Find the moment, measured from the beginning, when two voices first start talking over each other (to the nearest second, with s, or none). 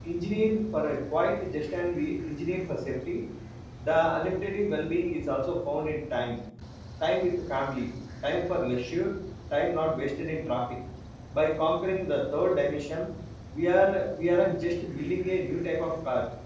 none